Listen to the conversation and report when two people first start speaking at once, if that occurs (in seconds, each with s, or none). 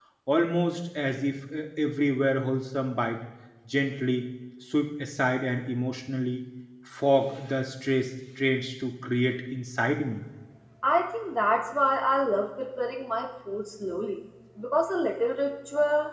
none